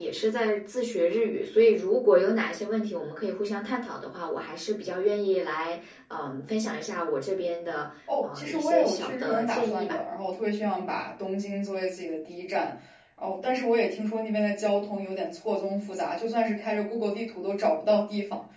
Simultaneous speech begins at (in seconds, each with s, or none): 8.1 s